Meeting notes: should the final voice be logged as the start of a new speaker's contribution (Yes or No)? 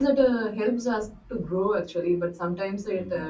No